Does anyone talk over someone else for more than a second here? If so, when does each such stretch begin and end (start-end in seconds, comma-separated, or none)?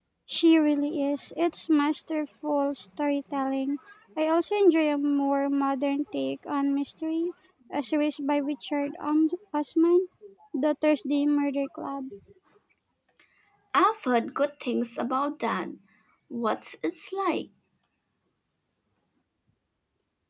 none